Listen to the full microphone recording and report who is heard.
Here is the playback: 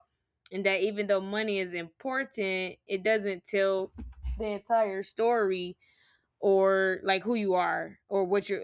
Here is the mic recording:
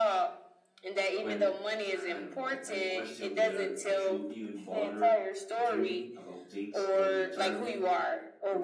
both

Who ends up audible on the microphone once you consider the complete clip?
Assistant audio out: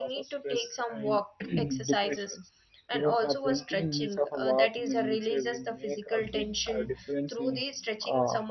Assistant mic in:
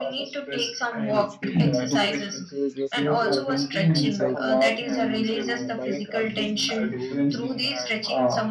both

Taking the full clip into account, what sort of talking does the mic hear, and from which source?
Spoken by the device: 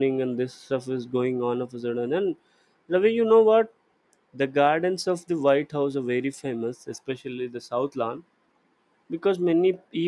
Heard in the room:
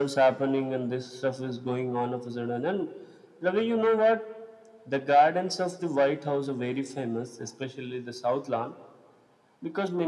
echo only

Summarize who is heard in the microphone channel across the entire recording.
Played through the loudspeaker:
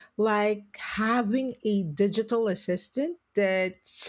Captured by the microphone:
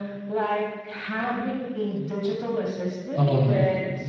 both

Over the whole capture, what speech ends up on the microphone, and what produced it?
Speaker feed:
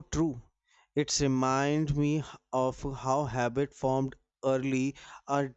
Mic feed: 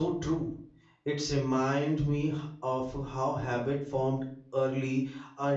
echo only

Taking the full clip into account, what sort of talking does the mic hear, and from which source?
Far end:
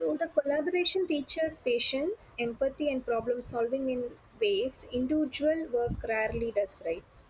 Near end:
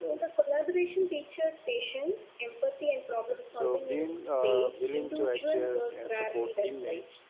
both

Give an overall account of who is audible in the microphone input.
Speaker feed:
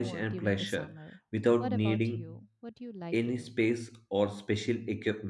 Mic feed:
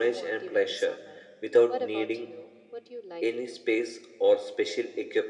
echo only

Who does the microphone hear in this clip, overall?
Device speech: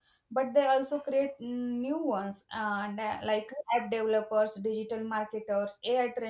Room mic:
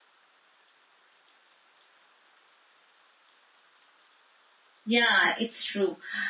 user only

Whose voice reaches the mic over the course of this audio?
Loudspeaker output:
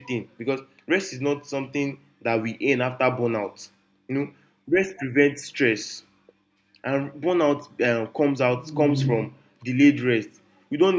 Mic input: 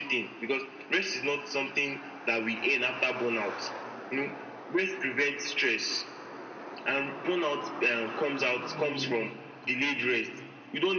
echo only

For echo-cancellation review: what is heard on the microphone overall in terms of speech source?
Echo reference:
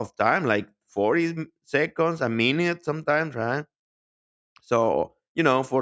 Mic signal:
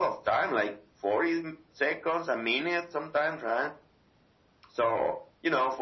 echo only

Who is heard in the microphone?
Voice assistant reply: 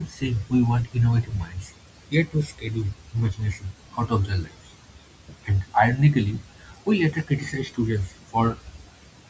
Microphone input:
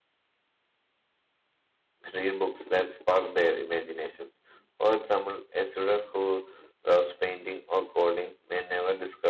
user only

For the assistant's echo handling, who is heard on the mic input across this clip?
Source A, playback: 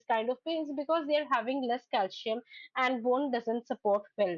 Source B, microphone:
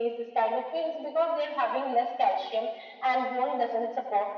echo only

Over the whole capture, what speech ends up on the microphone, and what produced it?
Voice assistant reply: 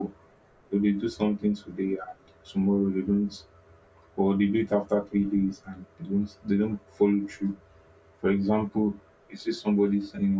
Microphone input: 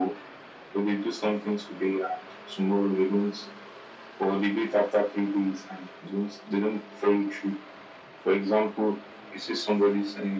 echo only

